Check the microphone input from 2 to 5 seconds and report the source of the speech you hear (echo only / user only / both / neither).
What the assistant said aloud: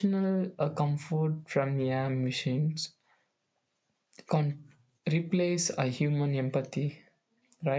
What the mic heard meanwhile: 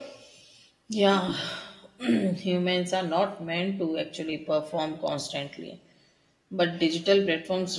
user only